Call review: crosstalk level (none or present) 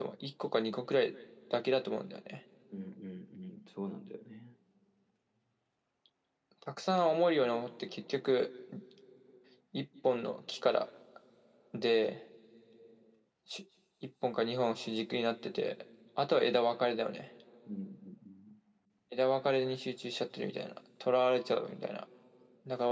none